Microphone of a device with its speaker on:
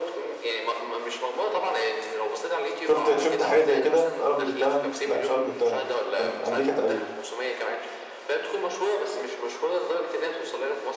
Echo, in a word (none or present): present